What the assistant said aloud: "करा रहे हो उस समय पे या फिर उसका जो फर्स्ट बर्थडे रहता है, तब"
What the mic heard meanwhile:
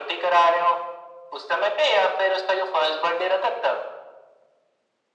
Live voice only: none

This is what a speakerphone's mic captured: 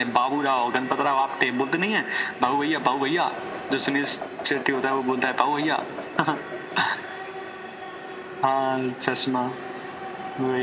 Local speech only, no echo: none

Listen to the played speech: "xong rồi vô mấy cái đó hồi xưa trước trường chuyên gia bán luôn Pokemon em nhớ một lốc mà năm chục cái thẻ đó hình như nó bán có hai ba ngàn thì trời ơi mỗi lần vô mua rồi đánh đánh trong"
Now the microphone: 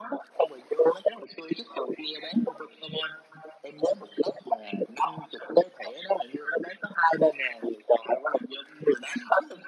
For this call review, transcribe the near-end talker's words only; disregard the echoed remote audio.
none

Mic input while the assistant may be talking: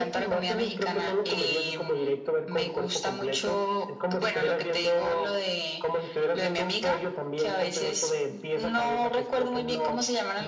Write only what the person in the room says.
none

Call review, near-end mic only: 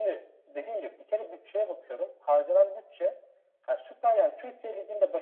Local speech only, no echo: none

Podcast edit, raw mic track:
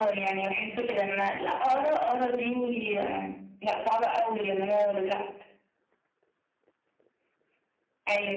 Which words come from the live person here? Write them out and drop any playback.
none

